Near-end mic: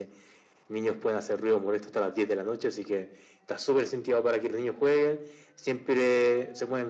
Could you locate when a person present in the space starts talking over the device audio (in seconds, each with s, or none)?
none